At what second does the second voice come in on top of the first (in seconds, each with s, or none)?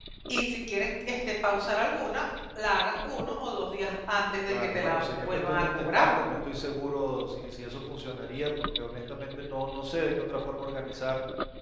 4.5 s